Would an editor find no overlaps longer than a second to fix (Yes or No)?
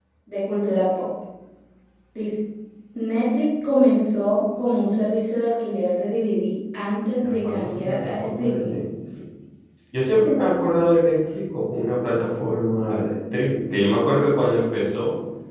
No